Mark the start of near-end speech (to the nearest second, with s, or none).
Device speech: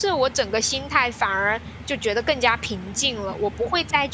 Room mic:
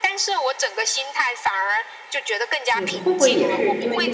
3 s